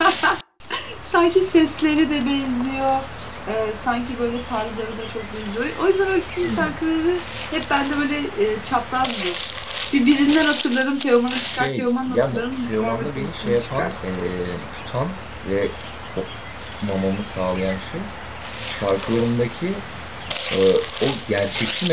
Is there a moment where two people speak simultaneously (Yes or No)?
Yes